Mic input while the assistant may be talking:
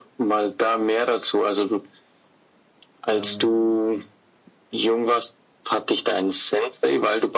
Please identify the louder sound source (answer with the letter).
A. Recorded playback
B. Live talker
A